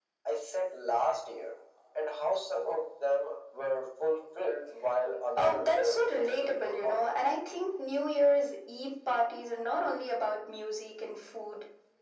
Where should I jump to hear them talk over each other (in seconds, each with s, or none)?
5.4 s